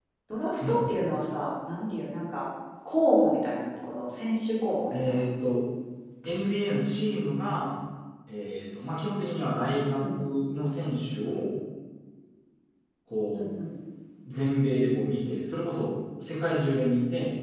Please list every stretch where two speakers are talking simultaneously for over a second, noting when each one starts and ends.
none

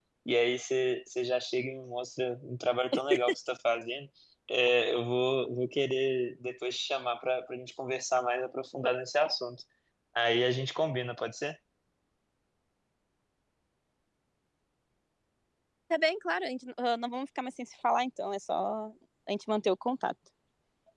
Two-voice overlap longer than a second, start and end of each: none

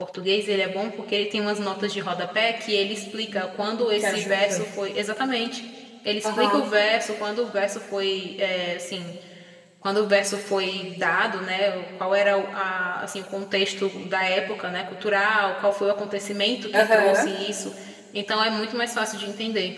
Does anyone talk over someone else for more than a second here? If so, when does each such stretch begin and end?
3.3-4.6

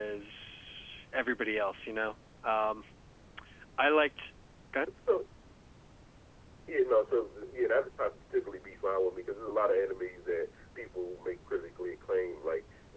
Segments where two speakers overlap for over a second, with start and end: none

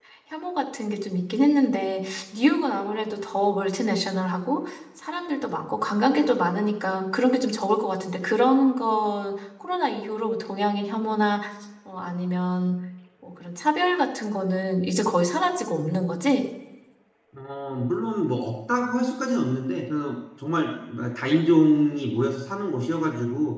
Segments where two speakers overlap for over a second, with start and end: none

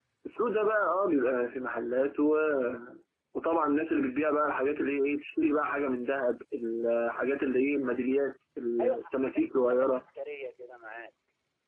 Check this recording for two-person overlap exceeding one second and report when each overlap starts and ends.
8.8-10.0

